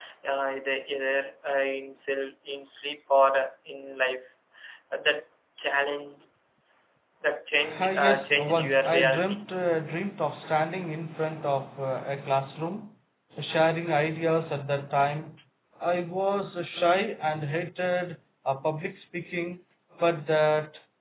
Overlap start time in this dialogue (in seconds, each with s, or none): 7.8 s